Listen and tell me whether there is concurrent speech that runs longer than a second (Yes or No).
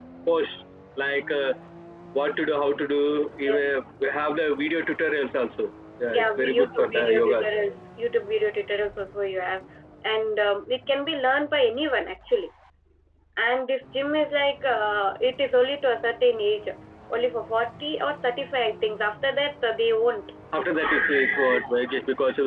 Yes